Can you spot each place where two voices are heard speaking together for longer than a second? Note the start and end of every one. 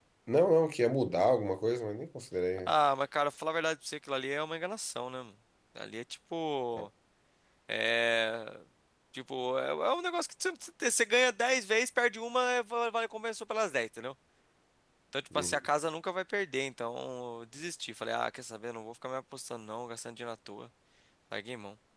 none

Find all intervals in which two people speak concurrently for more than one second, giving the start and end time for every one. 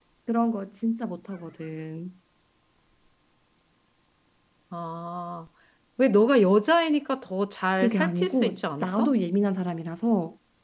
7.8-9.1

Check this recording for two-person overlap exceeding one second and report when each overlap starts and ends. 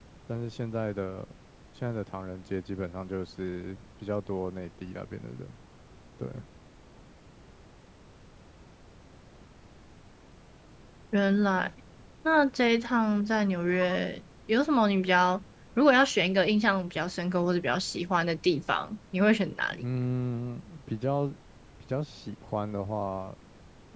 none

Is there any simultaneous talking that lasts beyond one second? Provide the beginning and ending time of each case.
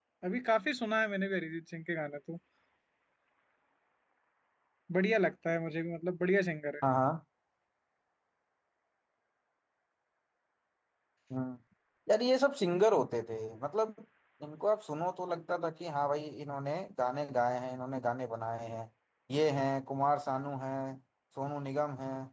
none

